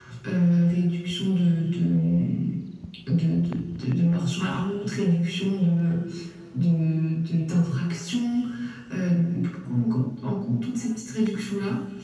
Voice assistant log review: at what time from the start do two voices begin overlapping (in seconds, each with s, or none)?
none